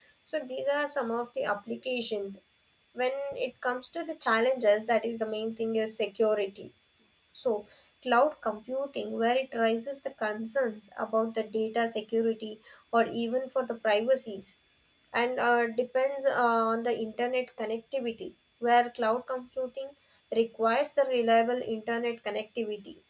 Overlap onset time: none

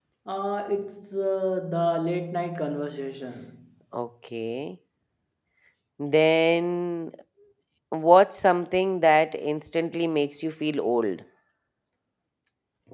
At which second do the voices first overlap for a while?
none

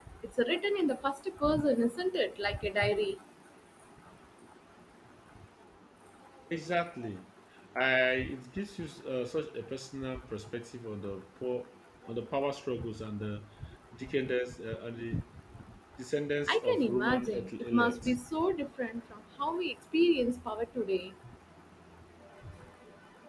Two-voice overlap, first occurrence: 16.5 s

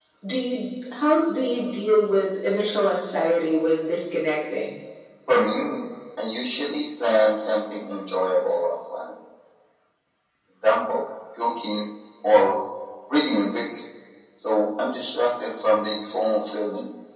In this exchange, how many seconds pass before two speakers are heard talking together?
none

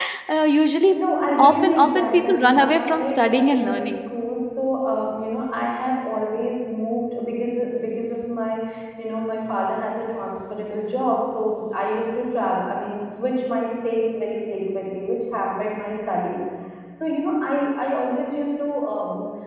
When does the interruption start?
1.4 s

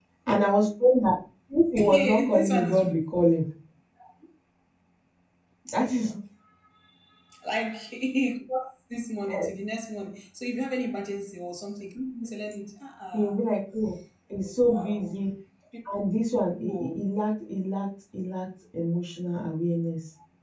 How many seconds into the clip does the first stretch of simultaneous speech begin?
1.8 s

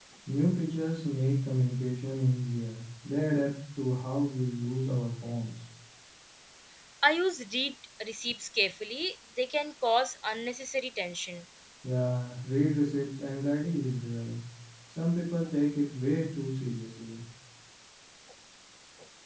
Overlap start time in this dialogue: none

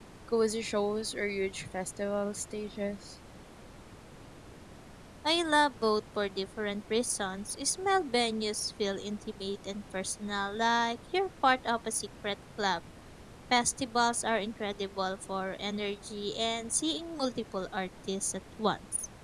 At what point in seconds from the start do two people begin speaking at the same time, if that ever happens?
none

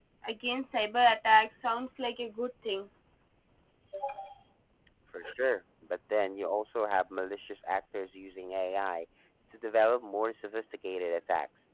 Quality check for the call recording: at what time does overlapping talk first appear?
none

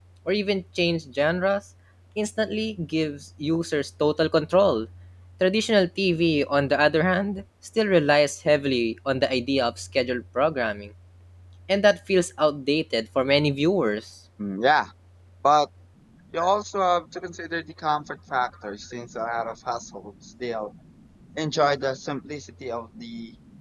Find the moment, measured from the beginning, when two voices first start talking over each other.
none

